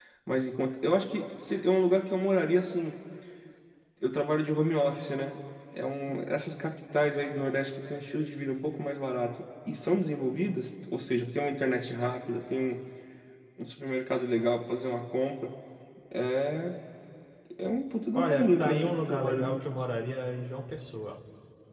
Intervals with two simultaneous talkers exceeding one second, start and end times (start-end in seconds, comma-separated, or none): 18.1-19.6